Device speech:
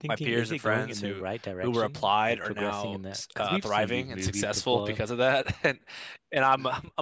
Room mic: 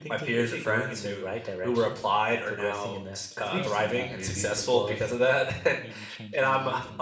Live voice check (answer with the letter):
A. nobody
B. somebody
B